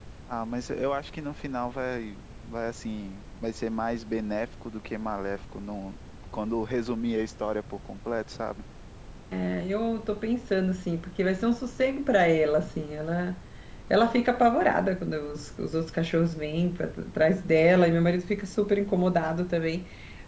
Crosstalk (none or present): none